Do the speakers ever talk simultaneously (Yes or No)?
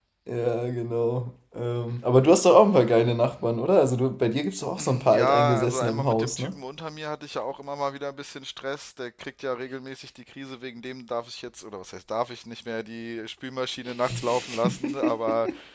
Yes